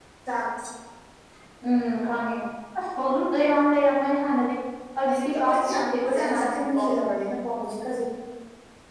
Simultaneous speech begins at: 5.1 s

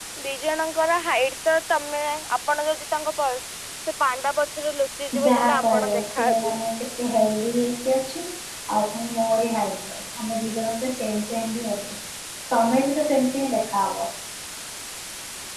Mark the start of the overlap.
5.1 s

